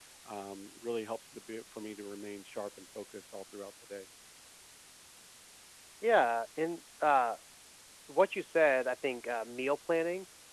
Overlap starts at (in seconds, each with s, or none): none